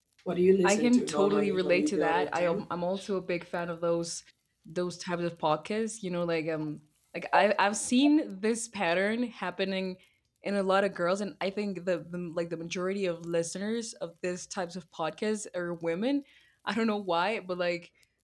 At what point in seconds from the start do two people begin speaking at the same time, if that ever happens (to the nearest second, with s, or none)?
1 s